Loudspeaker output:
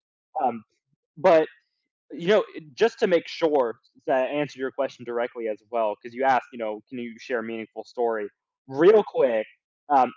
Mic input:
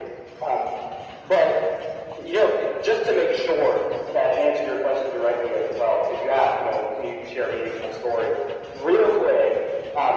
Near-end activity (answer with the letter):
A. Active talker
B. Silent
B